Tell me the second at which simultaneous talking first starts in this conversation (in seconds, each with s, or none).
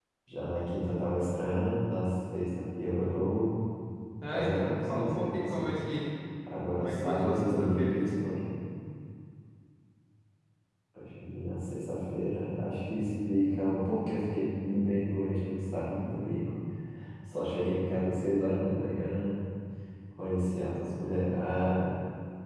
4.3 s